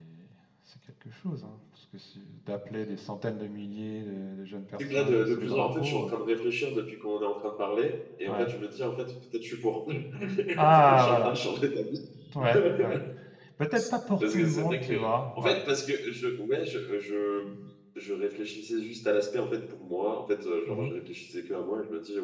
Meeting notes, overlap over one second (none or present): present